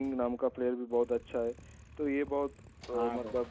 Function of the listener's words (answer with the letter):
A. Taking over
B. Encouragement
B